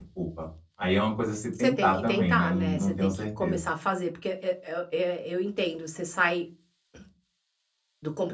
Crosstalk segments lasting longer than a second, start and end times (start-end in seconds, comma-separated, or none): 1.6-3.6